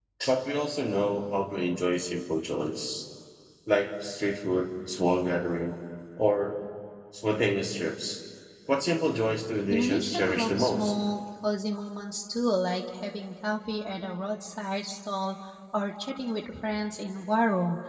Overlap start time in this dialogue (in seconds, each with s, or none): 9.7 s